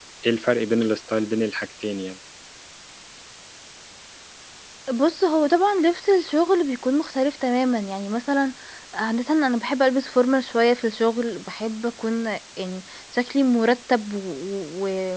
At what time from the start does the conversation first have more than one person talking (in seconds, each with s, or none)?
none